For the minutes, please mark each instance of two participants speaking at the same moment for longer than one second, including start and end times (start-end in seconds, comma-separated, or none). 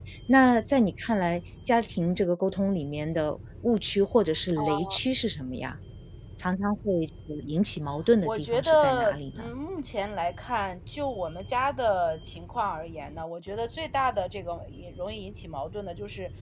8.2-9.5